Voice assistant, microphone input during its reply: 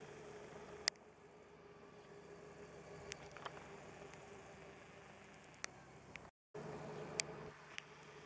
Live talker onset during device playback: none

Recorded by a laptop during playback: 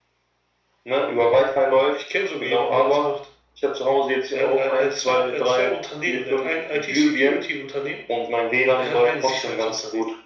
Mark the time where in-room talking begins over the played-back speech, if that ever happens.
none

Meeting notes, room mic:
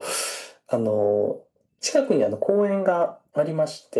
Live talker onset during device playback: none

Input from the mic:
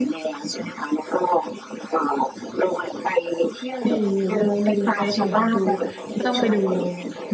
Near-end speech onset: 3.8 s

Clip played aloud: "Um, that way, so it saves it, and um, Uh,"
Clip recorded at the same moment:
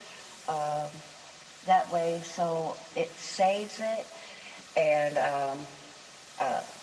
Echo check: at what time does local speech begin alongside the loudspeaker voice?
none

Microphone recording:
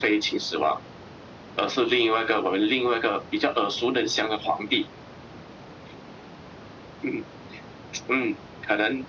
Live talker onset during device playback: none

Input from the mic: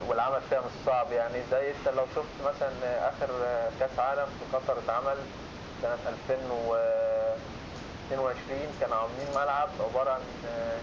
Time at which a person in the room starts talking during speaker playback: none

